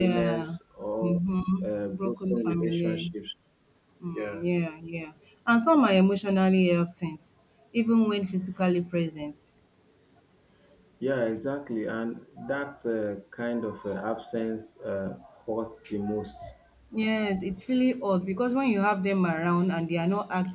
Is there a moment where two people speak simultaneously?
Yes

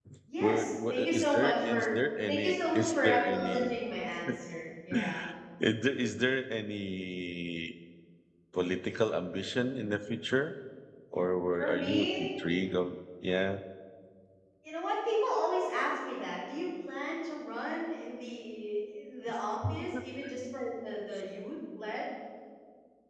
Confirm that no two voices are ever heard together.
No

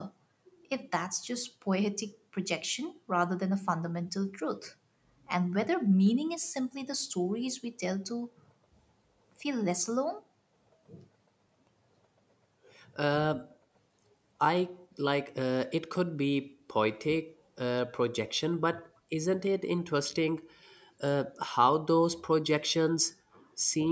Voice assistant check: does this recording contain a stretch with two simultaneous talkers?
No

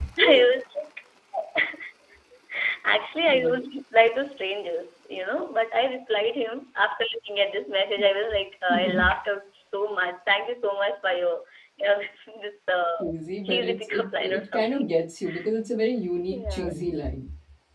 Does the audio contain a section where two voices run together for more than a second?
Yes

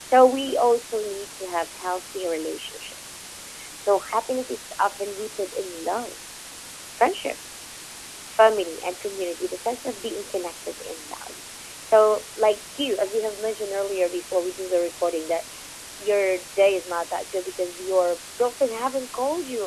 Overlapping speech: No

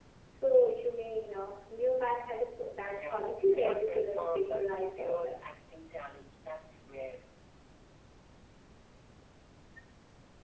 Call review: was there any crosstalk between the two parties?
Yes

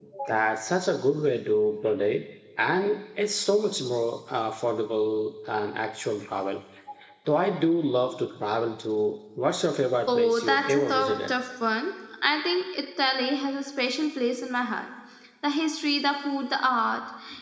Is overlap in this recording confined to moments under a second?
No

